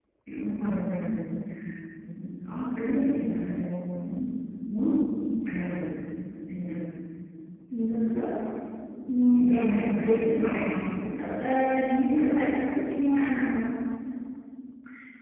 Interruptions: present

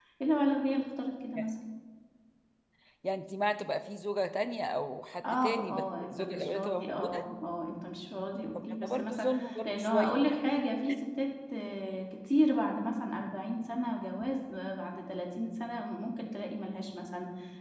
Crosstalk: present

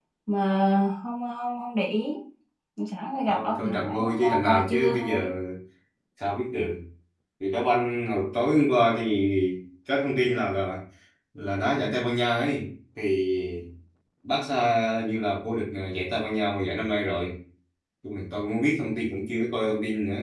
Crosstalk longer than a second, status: present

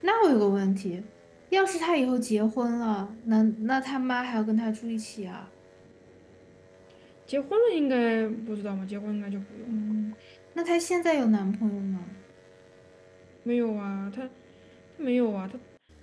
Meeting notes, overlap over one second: none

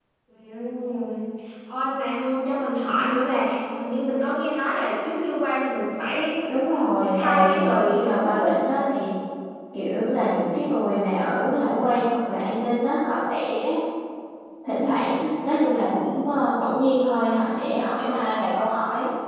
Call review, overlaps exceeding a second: present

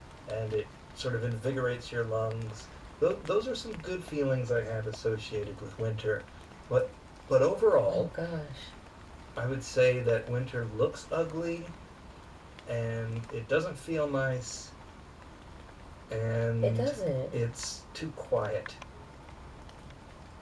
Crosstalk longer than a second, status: none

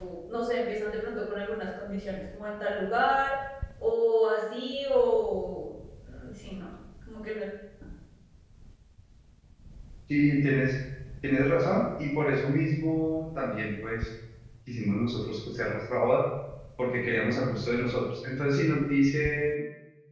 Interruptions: none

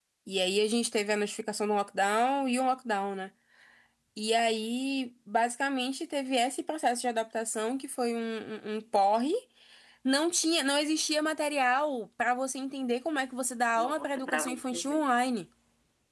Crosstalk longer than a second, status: present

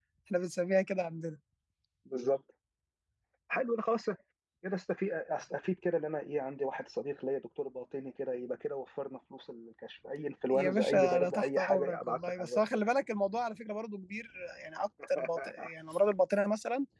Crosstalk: present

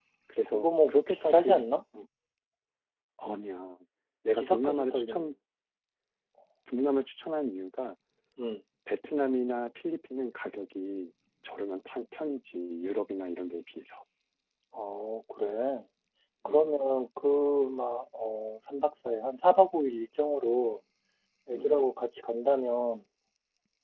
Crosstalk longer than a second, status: present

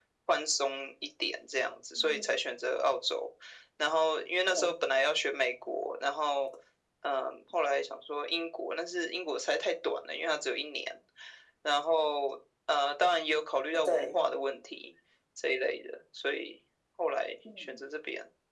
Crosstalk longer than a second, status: none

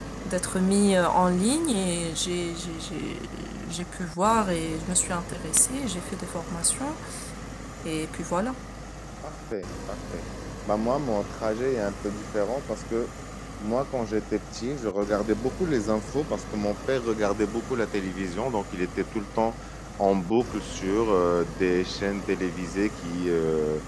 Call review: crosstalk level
none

